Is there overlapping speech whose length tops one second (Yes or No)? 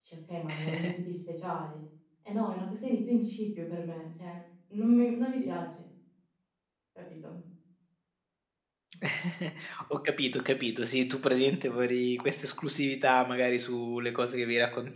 No